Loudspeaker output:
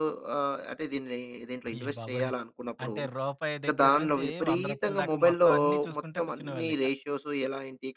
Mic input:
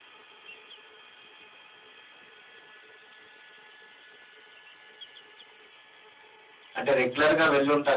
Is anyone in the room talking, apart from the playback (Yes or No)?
Yes